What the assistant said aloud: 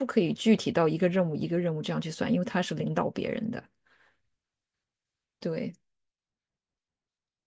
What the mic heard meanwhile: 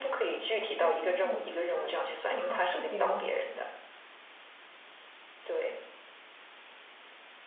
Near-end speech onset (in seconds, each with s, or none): 0.8 s